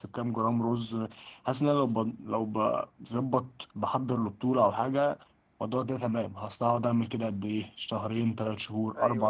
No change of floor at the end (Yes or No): Yes